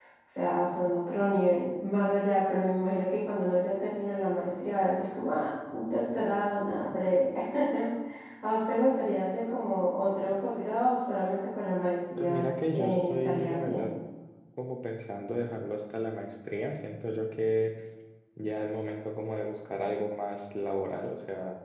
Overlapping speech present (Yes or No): Yes